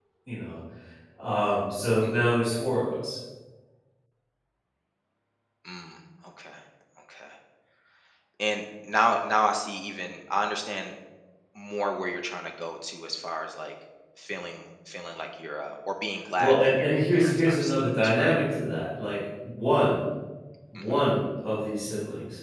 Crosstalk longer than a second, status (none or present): present